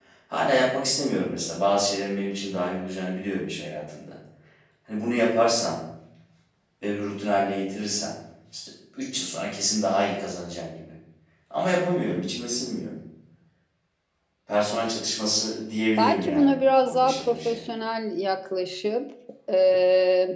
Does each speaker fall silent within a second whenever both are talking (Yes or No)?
No